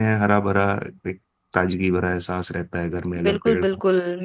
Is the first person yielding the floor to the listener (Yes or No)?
Yes